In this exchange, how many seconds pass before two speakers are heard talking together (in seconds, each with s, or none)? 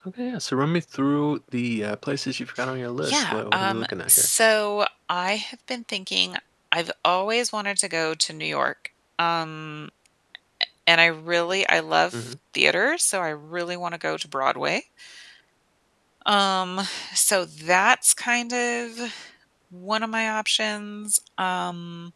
3.0 s